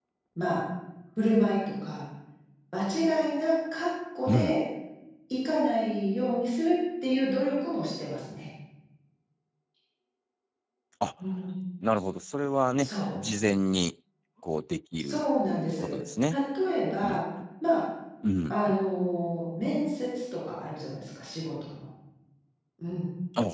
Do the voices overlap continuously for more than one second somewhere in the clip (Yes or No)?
No